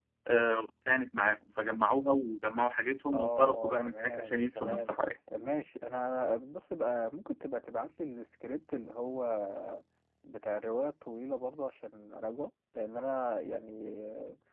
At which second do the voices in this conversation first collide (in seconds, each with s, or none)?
3.1 s